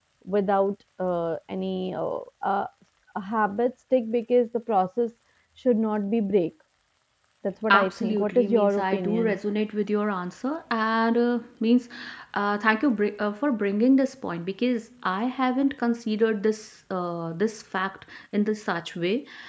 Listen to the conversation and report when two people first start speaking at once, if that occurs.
7.8 s

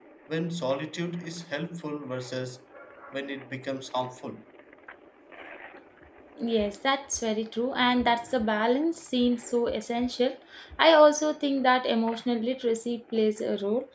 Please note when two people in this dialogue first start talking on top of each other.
none

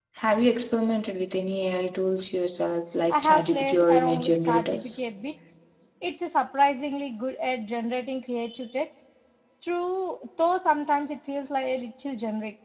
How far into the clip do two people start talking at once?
3.1 s

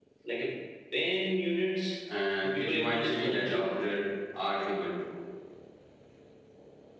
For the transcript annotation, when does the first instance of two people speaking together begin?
2.4 s

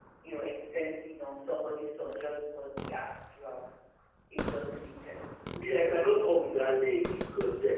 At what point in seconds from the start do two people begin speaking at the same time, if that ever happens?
none

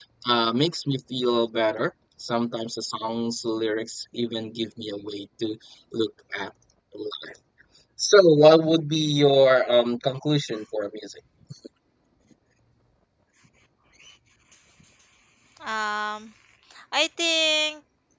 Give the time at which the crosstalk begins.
none

